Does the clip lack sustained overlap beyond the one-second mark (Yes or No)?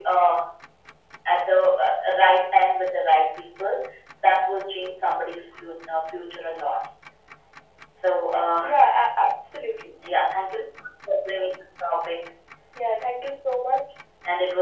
Yes